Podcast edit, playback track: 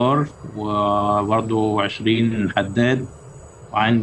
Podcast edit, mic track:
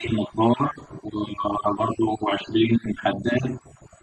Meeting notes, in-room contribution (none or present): none